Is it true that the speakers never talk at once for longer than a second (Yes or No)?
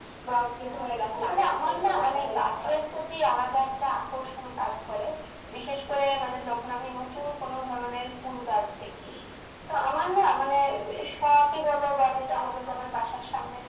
No